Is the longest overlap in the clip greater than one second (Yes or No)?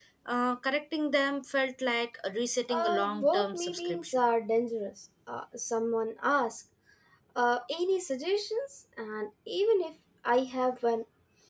Yes